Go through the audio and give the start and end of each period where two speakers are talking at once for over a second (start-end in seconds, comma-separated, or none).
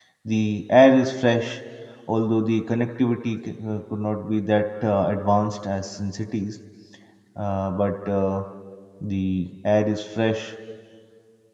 none